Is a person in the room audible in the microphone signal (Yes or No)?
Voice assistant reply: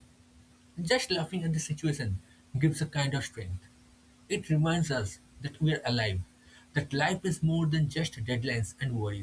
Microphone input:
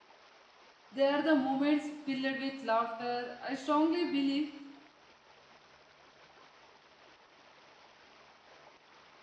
Yes